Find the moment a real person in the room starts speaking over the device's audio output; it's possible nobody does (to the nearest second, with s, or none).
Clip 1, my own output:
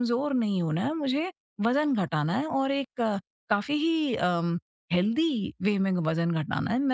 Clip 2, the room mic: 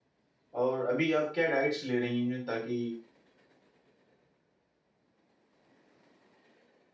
1 s